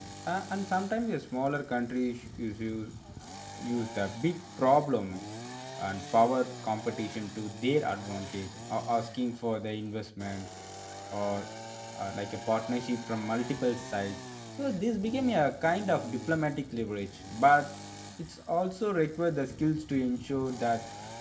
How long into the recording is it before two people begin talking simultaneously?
none

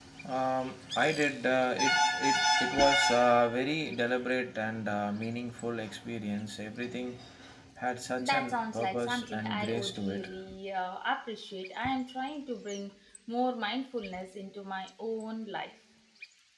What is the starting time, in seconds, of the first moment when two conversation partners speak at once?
8 s

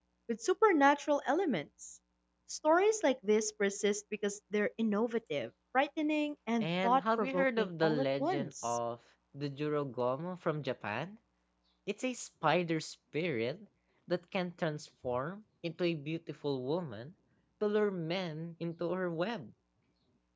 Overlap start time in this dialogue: 7 s

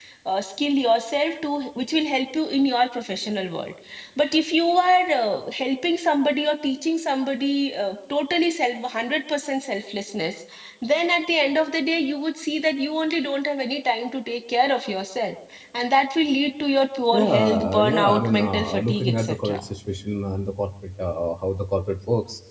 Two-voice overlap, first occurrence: 17 s

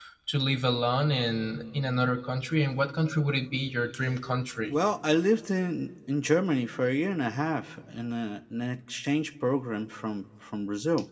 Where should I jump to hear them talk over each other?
none

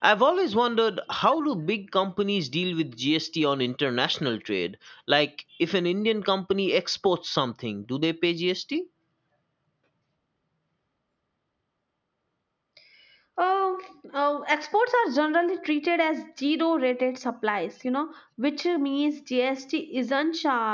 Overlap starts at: none

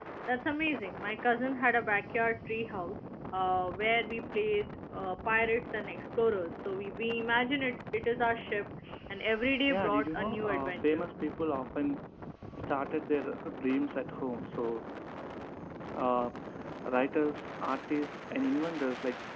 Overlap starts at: 10 s

